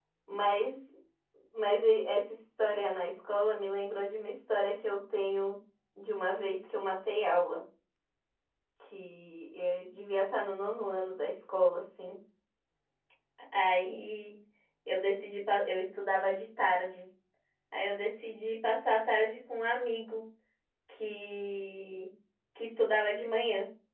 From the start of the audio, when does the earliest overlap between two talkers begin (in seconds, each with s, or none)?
none